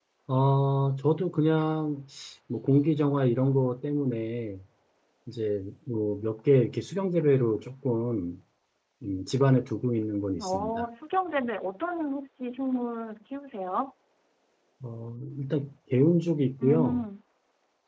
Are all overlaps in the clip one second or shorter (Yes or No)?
Yes